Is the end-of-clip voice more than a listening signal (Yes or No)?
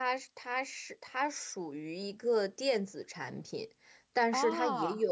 No